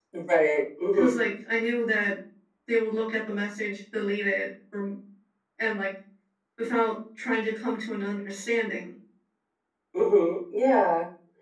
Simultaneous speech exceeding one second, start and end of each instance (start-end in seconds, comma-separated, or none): none